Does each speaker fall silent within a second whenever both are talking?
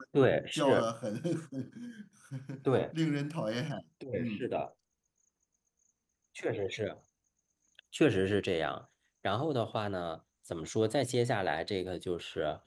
Yes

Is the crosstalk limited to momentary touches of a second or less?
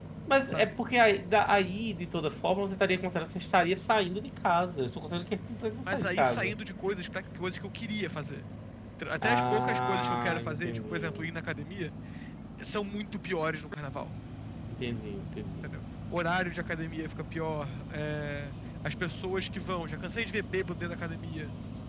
No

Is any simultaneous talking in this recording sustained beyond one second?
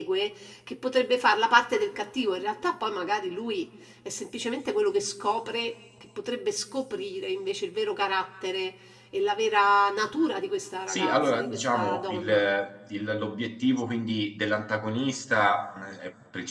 Yes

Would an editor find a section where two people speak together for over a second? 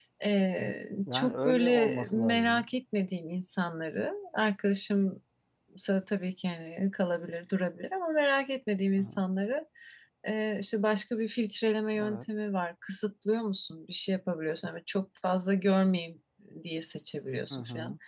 Yes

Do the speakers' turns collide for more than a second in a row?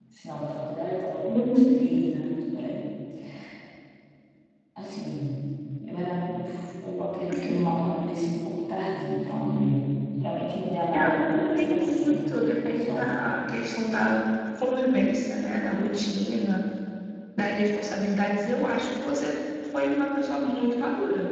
Yes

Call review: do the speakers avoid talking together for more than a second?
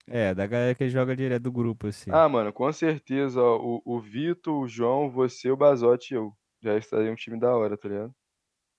Yes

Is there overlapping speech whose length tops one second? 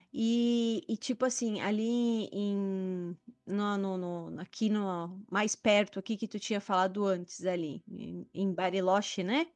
No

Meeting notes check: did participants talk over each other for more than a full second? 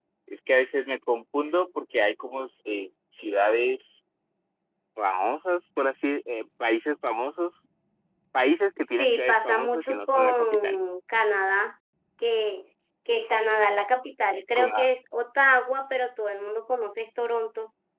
Yes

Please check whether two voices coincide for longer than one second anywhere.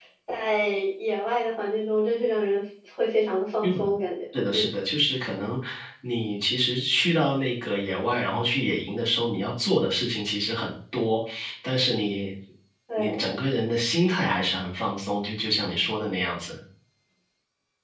No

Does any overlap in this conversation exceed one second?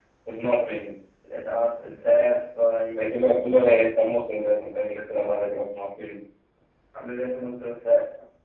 No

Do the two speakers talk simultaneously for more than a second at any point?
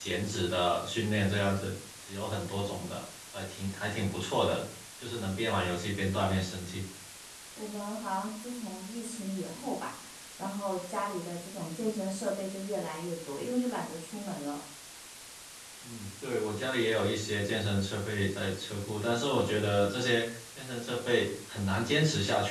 No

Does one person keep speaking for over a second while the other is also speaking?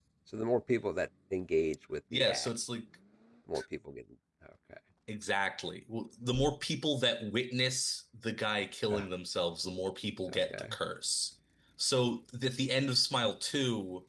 No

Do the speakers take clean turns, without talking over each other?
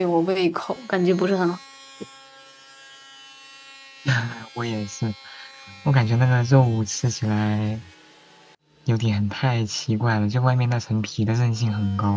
Yes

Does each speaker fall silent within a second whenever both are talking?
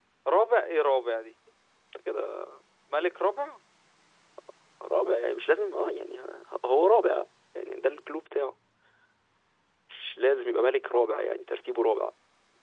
Yes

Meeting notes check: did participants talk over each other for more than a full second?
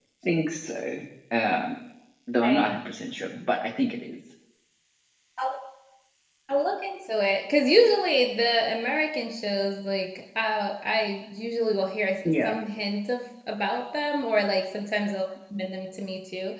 No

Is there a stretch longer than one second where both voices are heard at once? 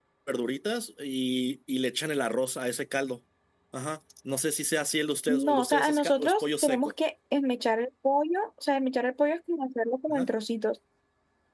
Yes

